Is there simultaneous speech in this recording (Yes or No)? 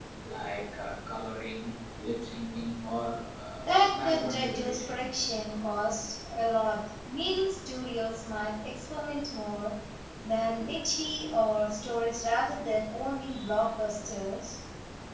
Yes